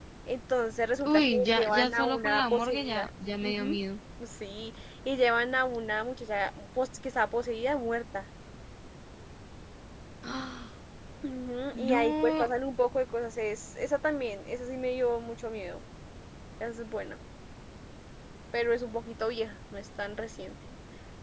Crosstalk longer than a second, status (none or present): present